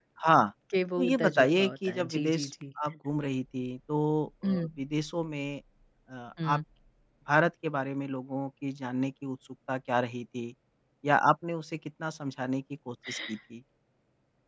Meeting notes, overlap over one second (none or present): present